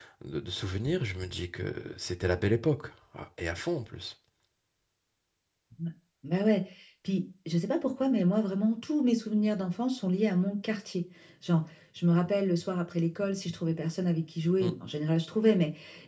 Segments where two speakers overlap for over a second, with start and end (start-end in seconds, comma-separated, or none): none